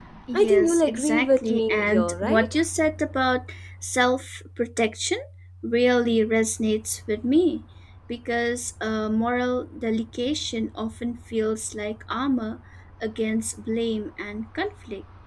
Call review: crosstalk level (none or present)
present